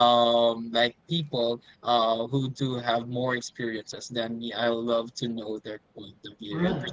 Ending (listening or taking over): listening